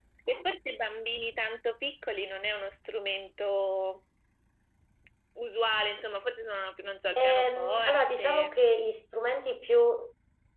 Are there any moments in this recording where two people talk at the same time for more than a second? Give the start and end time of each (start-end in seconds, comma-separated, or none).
7.2-8.5